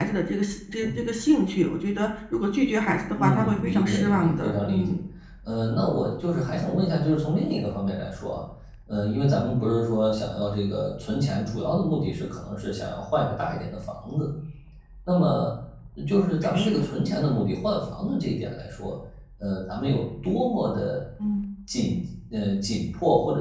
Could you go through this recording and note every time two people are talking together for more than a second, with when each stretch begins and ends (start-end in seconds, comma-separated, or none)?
3.2-5.0